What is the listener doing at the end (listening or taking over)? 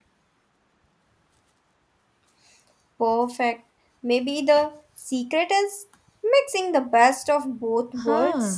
taking over